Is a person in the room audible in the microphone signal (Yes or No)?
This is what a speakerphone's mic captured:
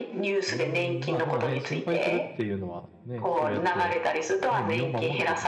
Yes